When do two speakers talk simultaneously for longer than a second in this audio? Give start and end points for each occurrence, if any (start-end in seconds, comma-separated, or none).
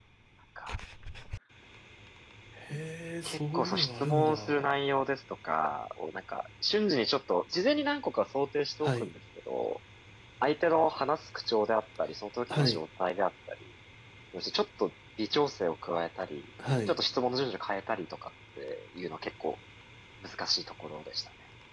3.2-4.7